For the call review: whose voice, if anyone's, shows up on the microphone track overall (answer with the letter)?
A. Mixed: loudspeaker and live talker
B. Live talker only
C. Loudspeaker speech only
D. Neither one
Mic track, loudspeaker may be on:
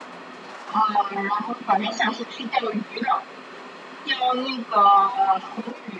C